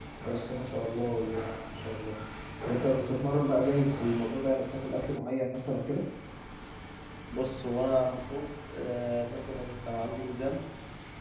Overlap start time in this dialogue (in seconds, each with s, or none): none